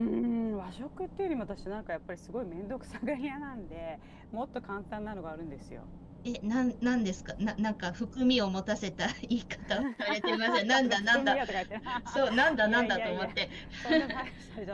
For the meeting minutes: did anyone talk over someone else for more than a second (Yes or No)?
Yes